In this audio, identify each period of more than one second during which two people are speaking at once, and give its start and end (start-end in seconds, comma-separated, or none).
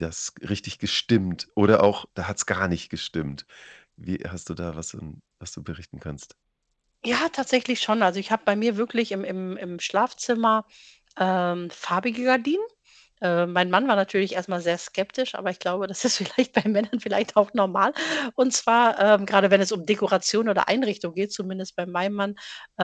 none